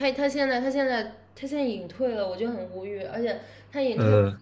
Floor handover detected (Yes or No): No